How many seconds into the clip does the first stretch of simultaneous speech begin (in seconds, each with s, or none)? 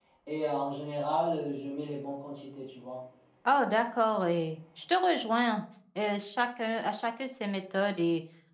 none